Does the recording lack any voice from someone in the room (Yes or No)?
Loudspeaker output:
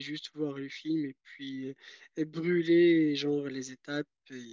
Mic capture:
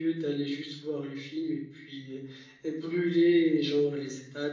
Yes